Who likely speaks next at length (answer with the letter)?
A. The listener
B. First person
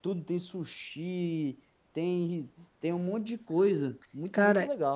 A